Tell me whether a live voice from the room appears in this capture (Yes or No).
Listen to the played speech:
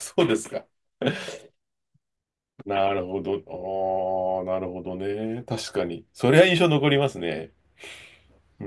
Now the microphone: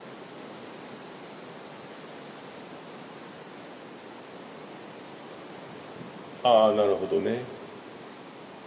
Yes